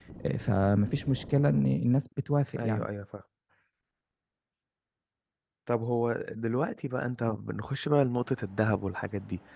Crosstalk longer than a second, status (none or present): none